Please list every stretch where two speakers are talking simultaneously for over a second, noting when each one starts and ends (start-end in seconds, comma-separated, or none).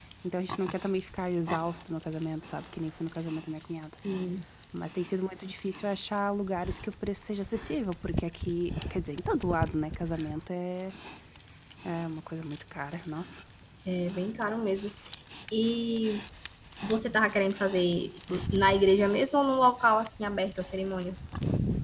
none